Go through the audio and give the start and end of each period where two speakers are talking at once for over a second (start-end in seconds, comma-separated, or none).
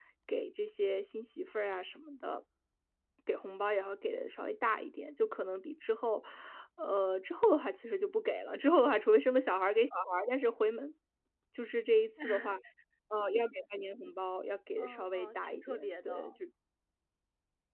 14.8-16.3